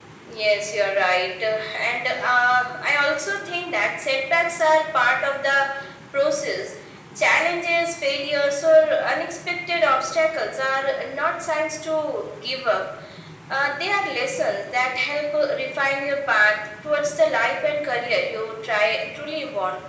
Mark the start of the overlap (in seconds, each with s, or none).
none